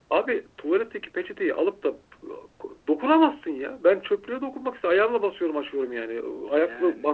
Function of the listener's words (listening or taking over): listening